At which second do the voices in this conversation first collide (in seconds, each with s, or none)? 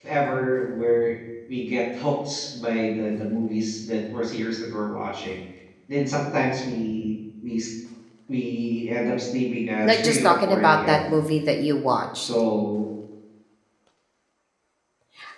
9.8 s